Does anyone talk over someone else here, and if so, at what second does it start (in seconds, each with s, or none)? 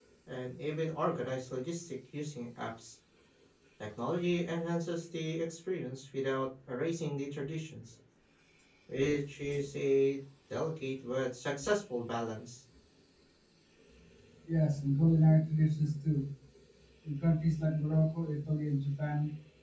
none